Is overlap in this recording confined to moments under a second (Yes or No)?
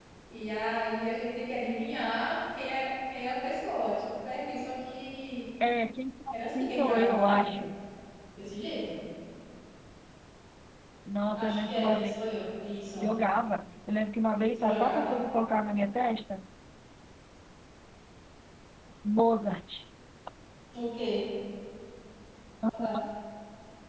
No